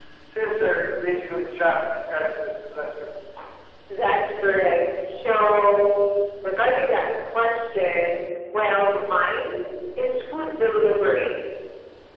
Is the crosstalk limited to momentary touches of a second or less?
Yes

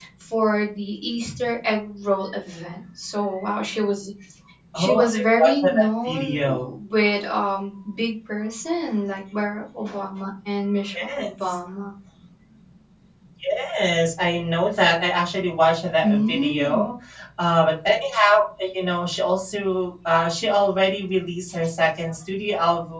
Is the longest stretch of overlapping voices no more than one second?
No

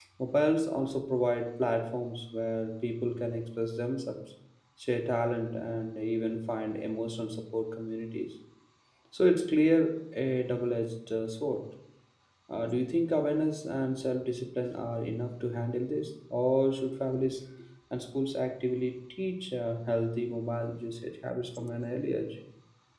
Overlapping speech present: No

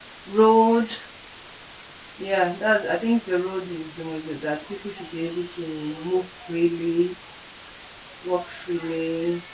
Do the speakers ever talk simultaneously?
No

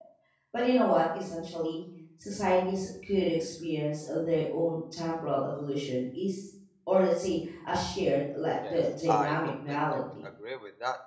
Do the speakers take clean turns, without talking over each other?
No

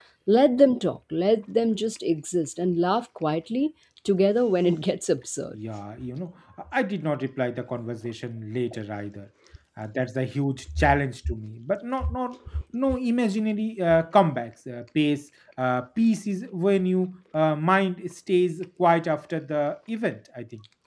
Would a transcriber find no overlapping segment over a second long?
Yes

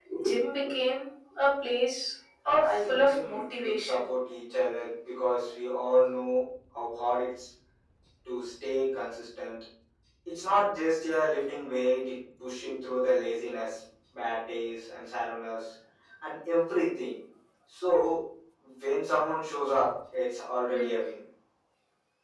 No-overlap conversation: No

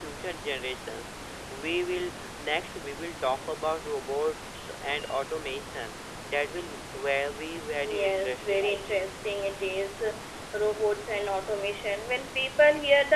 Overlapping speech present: Yes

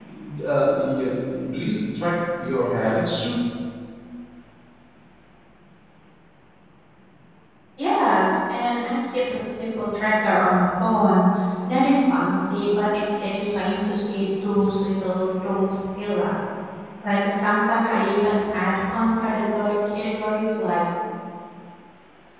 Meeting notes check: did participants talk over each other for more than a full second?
No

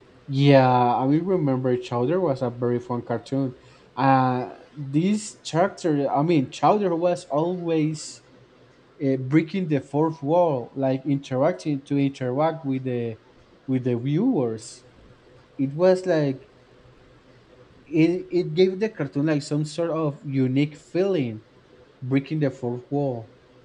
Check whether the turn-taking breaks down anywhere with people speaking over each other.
No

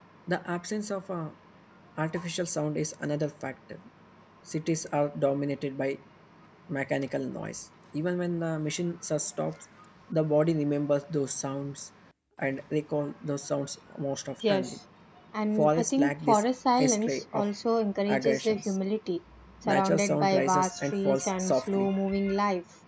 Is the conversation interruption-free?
No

